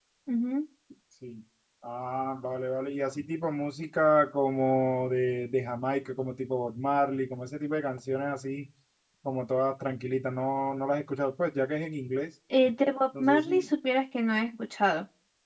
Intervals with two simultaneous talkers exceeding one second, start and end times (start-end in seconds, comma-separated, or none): none